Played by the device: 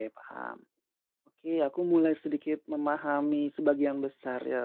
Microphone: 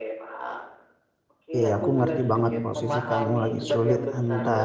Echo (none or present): present